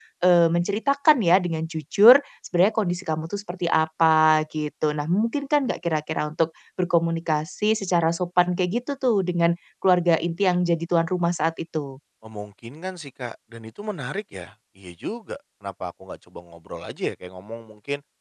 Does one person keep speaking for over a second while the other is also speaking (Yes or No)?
No